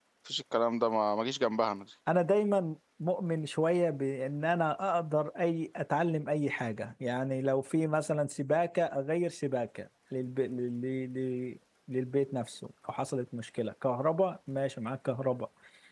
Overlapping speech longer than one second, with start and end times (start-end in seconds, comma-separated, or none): none